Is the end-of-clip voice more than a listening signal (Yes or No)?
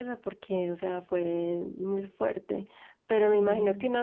No